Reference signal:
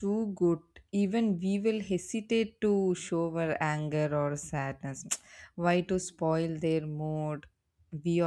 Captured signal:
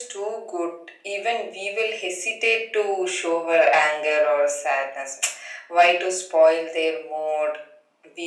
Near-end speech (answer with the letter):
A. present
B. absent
B